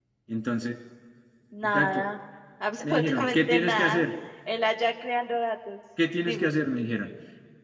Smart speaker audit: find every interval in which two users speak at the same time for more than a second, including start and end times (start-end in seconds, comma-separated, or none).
2.8-4.0